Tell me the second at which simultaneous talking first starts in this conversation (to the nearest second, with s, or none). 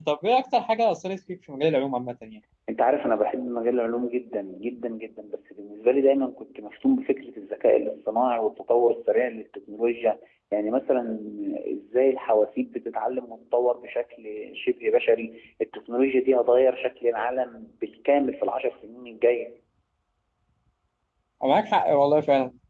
none